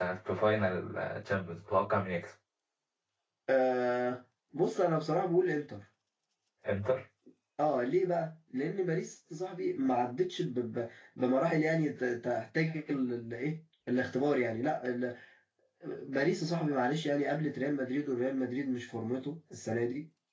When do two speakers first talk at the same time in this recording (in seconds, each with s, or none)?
none